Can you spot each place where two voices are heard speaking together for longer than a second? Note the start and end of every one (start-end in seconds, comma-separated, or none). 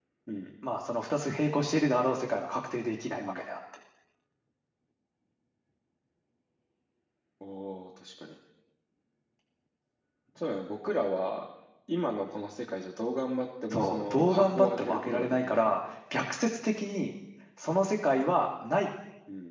13.7-15.8